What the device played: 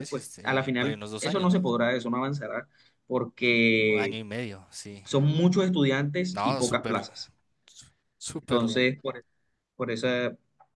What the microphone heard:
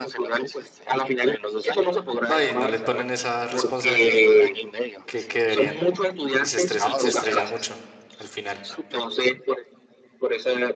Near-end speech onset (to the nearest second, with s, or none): 2 s